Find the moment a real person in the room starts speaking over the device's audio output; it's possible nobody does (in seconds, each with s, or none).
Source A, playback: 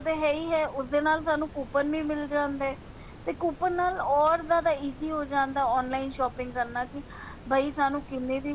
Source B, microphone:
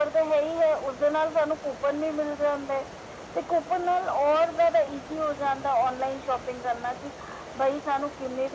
none